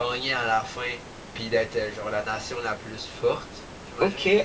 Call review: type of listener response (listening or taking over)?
taking over